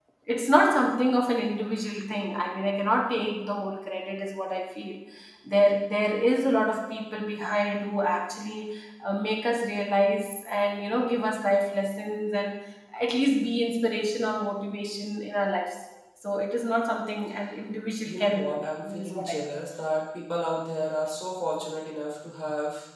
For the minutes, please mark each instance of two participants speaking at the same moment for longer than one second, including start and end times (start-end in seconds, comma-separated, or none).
18.0-19.4